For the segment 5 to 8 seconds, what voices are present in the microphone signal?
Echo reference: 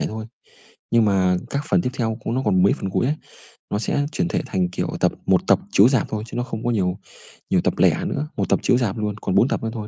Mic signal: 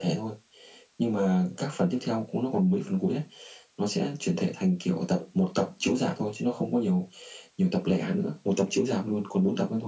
echo only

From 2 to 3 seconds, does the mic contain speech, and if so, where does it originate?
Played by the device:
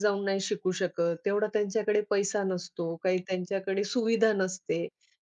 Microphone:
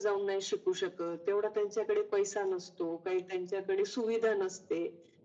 echo only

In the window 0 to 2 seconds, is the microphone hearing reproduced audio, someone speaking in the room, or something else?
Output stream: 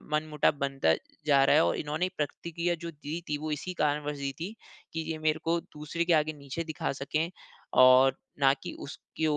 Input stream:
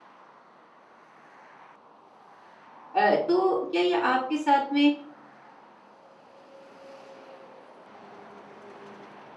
neither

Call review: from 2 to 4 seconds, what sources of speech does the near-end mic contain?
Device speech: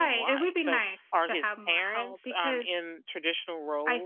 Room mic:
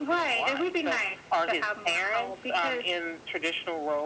echo only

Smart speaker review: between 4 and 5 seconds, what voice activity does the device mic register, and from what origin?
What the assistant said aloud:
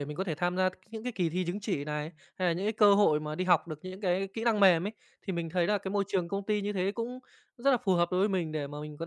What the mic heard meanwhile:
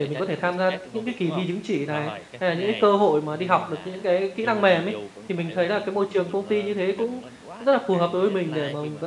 both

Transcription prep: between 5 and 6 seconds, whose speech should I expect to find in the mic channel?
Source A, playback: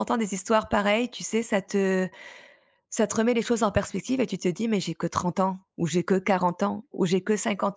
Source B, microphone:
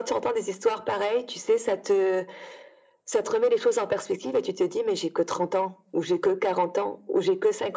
echo only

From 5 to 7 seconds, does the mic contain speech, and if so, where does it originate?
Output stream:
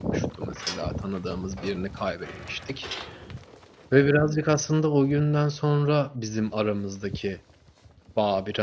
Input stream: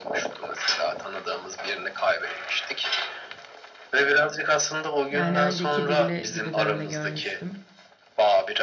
both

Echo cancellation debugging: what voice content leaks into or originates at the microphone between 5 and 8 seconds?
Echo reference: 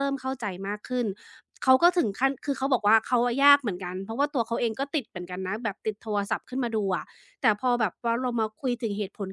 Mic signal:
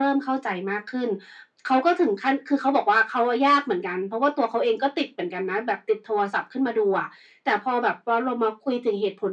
echo only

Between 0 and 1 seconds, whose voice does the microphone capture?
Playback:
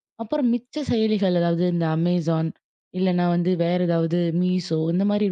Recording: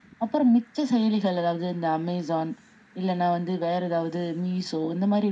echo only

